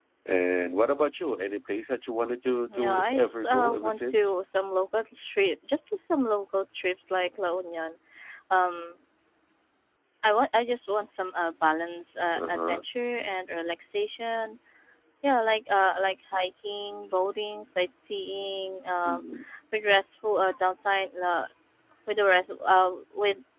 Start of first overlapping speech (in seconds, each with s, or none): 2.7 s